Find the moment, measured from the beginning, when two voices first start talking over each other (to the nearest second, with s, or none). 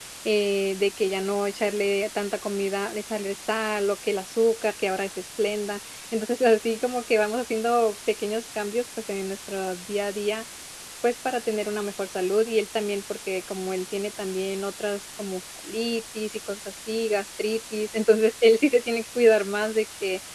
none